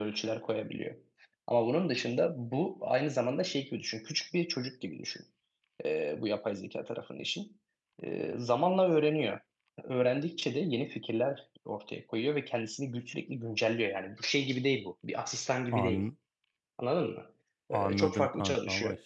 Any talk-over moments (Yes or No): Yes